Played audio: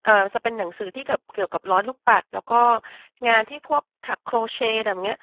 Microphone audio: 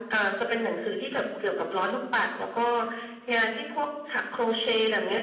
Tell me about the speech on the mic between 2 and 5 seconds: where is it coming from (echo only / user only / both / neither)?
echo only